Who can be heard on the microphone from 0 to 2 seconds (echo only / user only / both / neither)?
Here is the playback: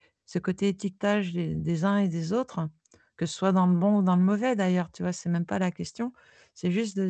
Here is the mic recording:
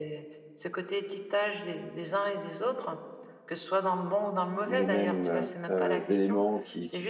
echo only